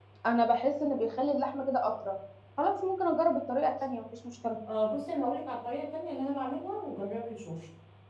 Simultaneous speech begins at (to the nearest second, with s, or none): none